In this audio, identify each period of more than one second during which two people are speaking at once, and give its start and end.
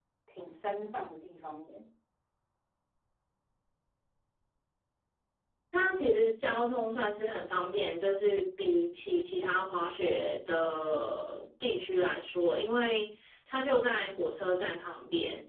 none

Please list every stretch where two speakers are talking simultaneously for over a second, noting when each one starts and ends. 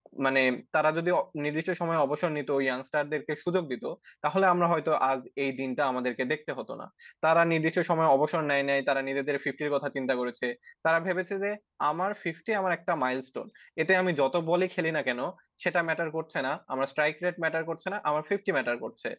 none

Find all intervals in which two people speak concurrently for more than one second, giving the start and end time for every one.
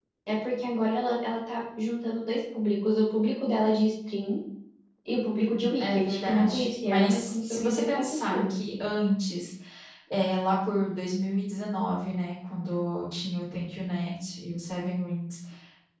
5.8-8.5

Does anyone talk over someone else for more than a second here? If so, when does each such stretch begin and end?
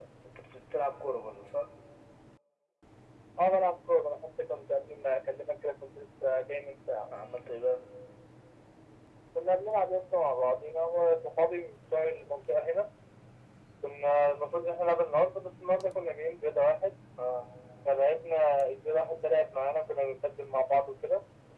none

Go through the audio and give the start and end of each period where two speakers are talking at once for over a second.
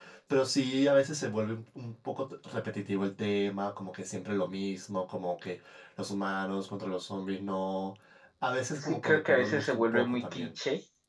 8.7-10.5

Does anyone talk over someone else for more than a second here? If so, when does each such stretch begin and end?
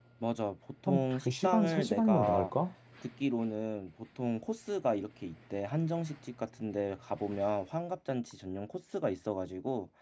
0.9-2.5

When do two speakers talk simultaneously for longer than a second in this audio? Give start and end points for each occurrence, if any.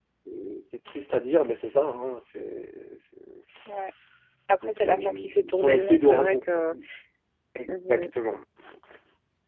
4.7-6.4

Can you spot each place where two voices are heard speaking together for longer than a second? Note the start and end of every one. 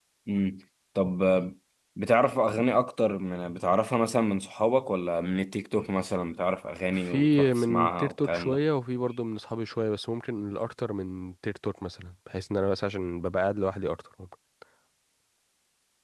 6.9-8.6

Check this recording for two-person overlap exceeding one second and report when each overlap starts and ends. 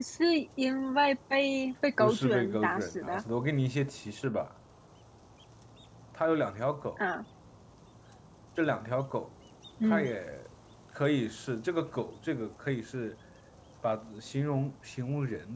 2.0-3.2

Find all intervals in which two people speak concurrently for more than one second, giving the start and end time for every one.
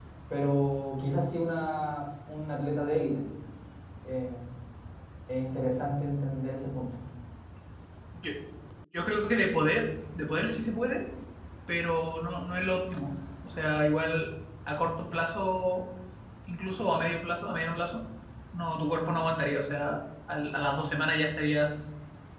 none

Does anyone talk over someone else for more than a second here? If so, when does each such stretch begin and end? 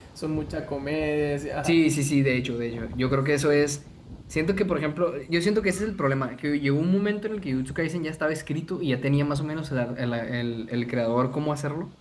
none

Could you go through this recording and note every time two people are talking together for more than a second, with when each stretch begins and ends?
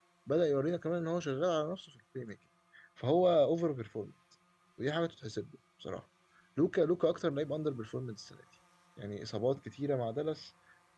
none

